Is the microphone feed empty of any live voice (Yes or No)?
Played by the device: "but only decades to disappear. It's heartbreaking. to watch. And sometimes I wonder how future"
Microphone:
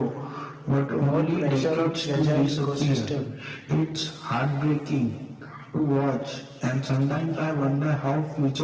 No